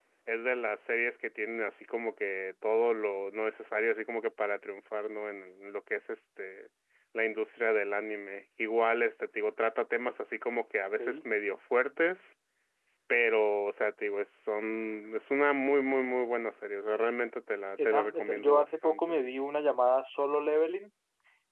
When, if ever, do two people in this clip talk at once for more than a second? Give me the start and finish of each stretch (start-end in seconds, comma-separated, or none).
17.8-19.1